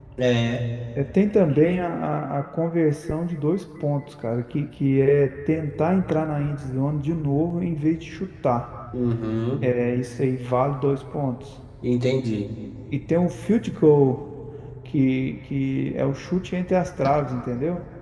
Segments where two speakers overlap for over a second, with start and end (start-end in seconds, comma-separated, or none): none